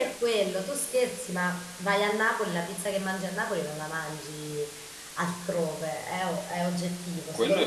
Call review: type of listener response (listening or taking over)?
listening